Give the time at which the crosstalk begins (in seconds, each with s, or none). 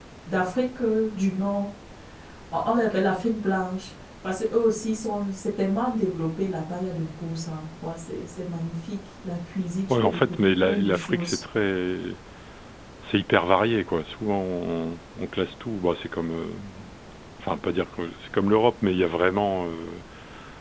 9.9 s